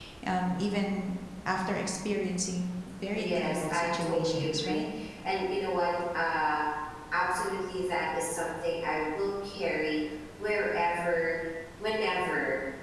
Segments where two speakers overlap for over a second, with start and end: 3.1-4.8

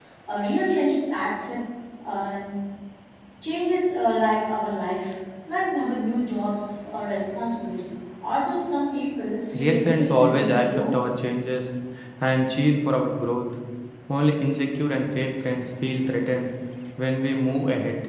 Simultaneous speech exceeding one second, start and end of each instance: 9.6-10.9

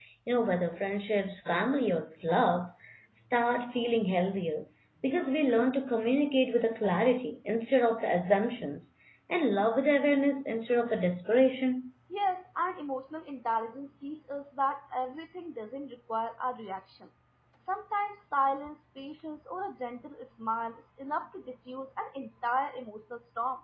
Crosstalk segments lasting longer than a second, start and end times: none

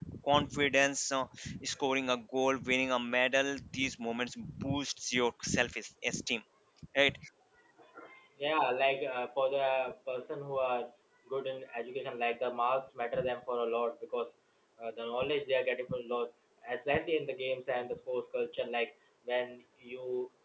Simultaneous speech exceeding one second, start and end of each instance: none

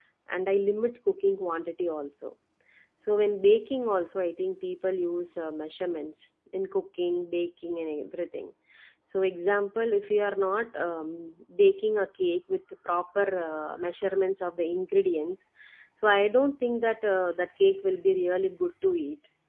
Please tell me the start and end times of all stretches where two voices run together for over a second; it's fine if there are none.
none

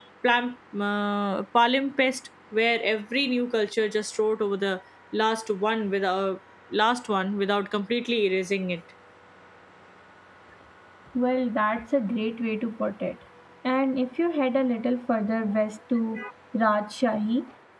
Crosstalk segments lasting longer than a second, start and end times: none

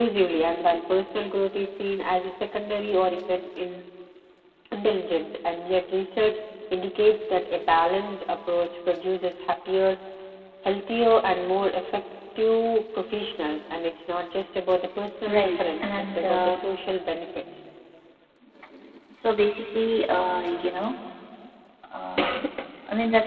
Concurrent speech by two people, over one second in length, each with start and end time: 15.2-16.6

